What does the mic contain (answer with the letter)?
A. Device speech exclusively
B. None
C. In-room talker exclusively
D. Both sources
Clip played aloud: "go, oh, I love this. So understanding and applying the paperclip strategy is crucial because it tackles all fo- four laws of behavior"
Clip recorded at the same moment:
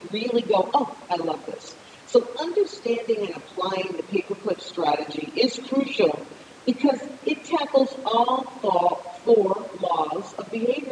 A